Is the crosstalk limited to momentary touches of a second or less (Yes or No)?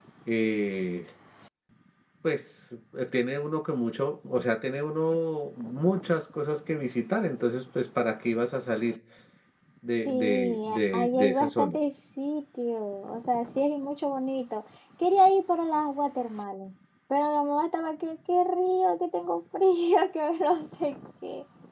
No